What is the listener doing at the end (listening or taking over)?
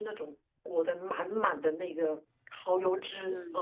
listening